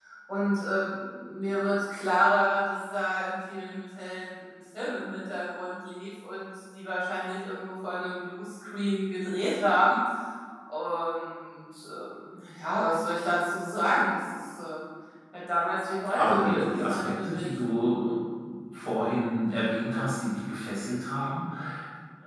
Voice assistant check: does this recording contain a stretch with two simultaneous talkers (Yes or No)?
Yes